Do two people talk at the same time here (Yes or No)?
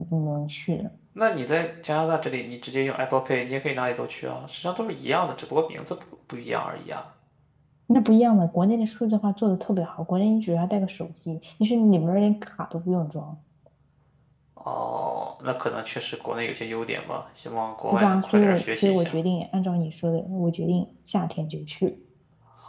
Yes